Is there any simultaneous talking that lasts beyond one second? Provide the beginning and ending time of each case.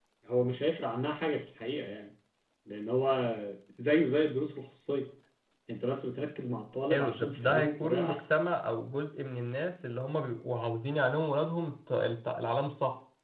6.9-8.2

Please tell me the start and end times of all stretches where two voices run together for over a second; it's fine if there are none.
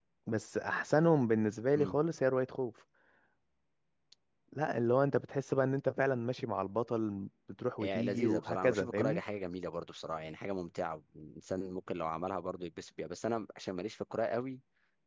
7.8-9.2

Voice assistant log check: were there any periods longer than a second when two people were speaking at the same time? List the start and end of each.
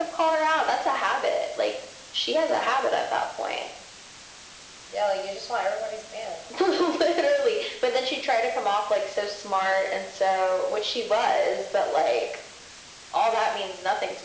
none

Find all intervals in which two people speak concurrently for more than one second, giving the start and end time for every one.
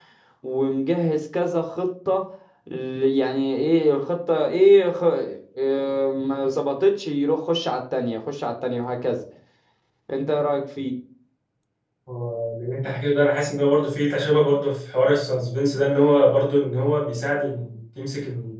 none

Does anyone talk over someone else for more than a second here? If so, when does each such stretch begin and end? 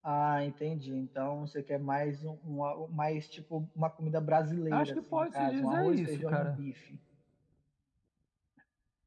4.7-6.6

